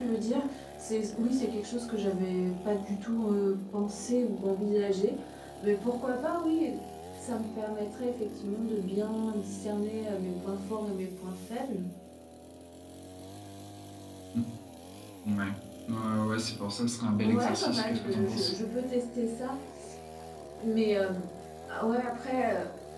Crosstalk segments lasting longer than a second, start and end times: 17.2-18.5

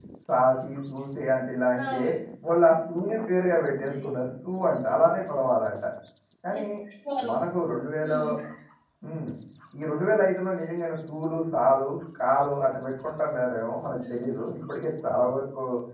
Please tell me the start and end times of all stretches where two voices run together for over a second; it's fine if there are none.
none

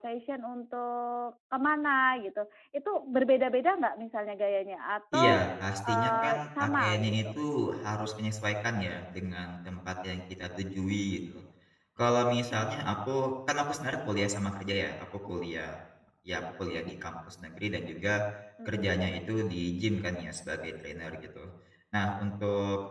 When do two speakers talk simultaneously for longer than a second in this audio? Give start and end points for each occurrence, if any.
5.9-7.1

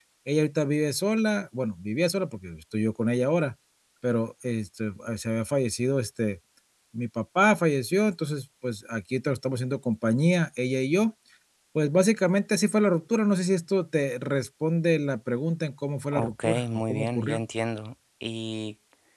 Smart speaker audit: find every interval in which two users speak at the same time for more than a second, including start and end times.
16.1-17.4

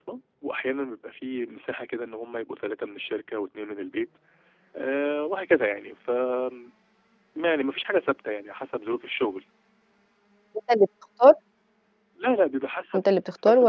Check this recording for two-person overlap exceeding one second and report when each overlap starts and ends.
none

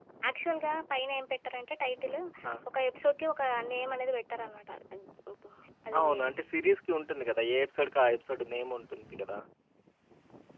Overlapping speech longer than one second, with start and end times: none

